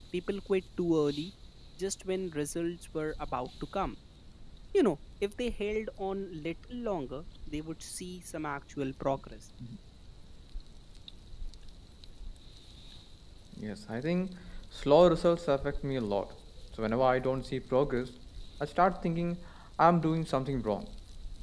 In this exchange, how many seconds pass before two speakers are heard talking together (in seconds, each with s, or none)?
none